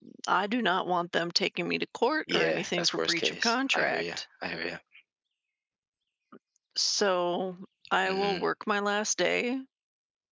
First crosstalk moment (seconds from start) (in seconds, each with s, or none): 2.3 s